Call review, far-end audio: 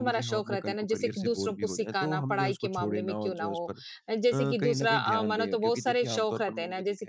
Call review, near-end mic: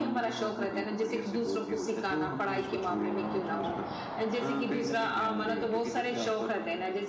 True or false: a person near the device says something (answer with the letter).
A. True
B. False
B